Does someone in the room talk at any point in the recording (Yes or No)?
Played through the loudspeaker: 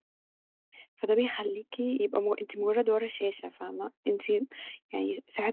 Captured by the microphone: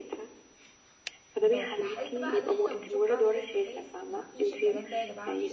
Yes